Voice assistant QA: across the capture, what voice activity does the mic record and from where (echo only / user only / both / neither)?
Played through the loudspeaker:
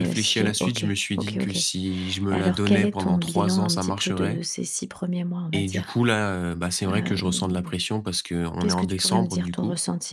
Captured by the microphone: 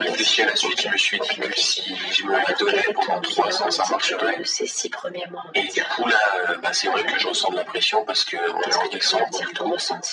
echo only